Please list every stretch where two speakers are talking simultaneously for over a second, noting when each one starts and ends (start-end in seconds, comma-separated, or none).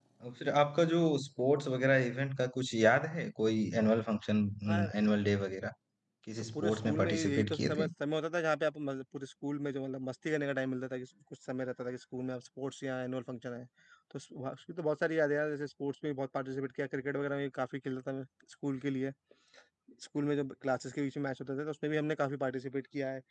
6.5-7.9